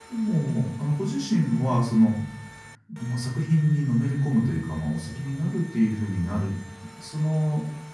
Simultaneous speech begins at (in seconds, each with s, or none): none